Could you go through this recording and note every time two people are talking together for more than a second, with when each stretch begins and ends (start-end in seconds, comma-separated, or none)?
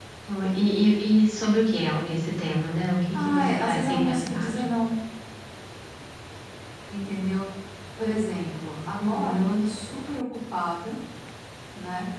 3.1-4.6